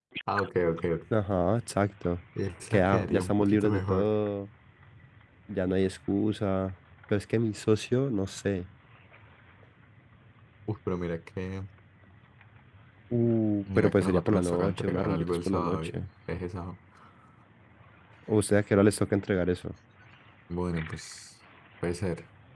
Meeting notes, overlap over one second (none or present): present